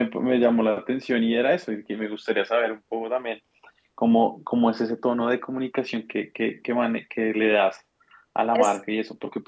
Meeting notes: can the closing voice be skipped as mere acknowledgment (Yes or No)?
Yes